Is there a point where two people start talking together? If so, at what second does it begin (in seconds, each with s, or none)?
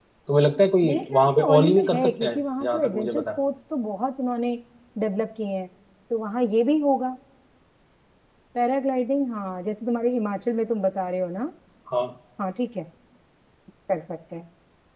0.8 s